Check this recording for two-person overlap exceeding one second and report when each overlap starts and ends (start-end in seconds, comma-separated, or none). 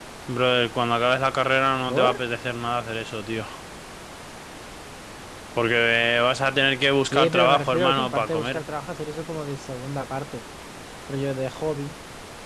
7.0-8.6